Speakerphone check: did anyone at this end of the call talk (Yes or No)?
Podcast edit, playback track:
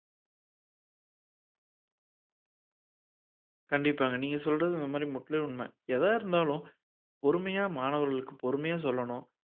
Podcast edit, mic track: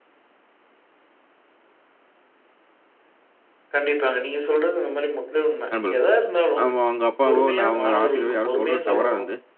Yes